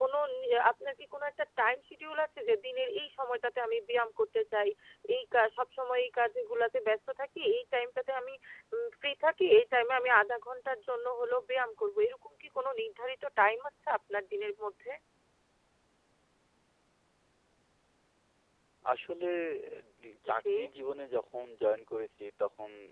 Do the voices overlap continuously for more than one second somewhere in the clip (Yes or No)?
No